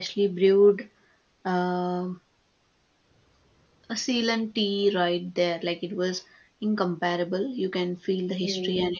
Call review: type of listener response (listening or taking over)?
listening